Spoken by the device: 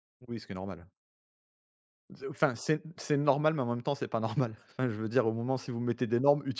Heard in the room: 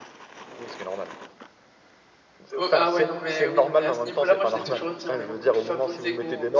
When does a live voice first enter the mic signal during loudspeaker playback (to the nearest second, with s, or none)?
3 s